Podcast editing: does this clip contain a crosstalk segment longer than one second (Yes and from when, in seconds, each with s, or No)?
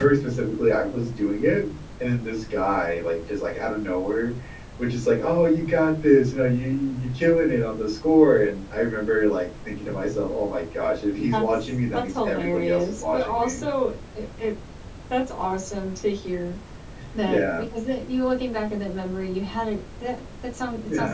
Yes, from 11.3 s